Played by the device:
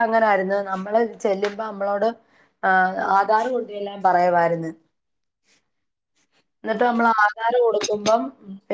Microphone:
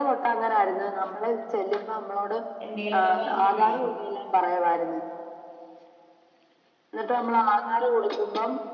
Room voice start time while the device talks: 2.6 s

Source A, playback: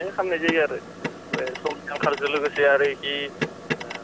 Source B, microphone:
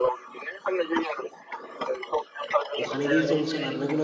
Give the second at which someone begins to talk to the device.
2.8 s

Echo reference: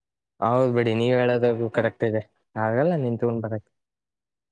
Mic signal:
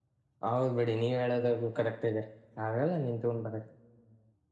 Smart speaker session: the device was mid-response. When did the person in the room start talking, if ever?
none

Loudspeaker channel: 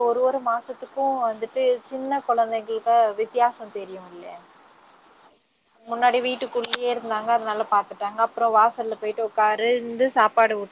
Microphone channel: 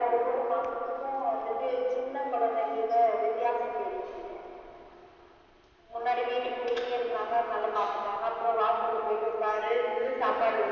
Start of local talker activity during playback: none

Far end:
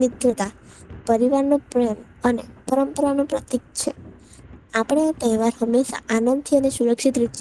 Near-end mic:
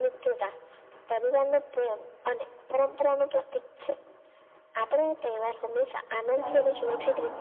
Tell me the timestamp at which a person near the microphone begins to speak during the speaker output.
6.4 s

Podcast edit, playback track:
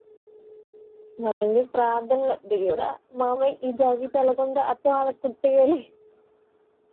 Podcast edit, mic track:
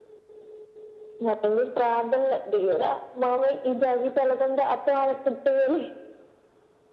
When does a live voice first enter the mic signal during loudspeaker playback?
none

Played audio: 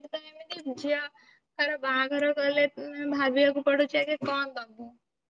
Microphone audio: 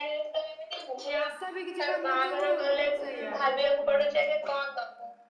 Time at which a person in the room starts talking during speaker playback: 1.2 s

